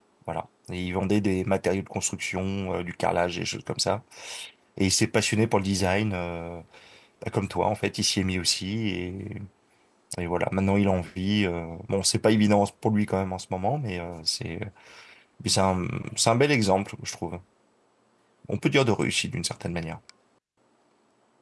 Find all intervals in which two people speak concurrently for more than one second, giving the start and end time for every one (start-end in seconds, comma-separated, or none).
none